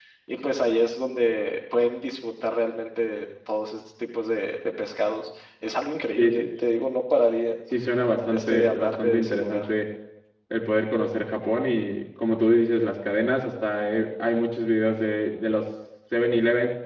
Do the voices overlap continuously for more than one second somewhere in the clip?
Yes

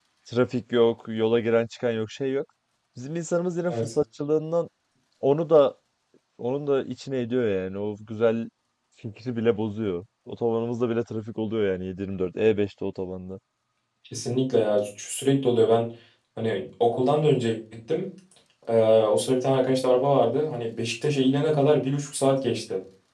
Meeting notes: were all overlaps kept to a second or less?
Yes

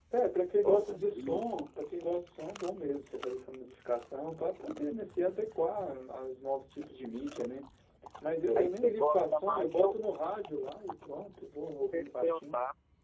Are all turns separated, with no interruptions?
No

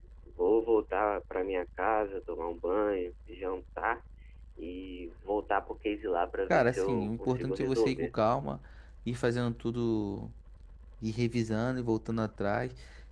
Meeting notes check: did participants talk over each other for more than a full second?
Yes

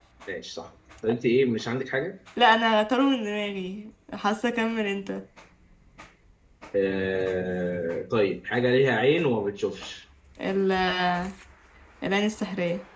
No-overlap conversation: Yes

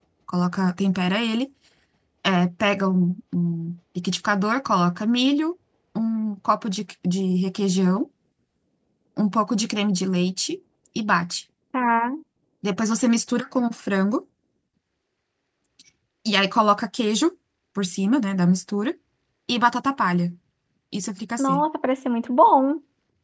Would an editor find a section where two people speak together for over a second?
No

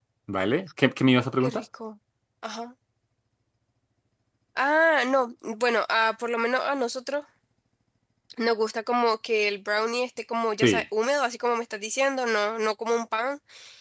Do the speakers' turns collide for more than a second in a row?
No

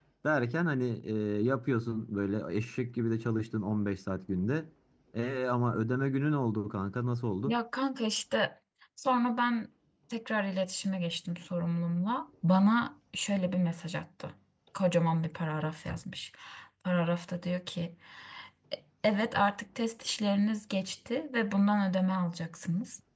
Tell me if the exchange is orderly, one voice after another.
Yes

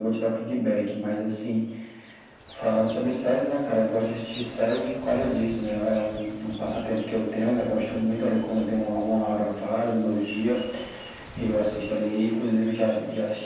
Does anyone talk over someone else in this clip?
No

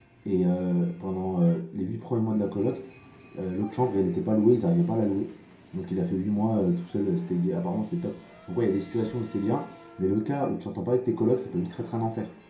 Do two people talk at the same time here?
No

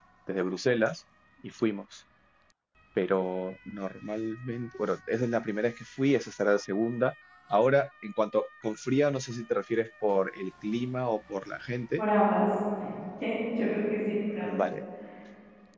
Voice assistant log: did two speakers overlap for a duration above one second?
No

